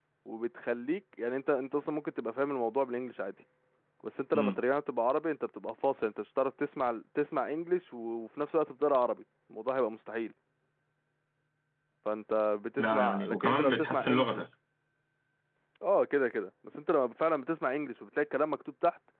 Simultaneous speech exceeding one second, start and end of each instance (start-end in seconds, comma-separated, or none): 12.8-14.4